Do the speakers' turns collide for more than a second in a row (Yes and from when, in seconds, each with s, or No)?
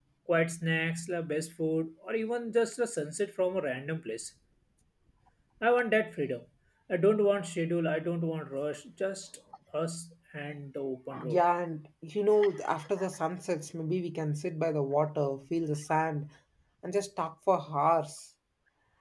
No